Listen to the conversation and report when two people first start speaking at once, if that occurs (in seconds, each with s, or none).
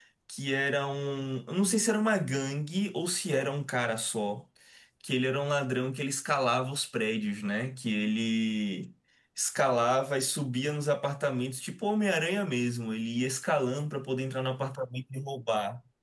none